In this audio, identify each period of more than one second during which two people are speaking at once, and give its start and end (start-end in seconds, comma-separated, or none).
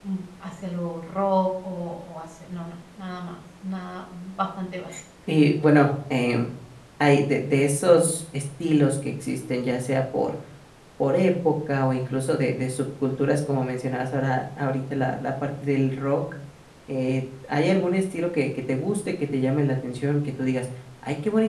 none